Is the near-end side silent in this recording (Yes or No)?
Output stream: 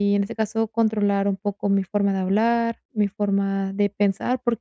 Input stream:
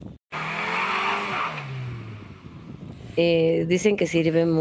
No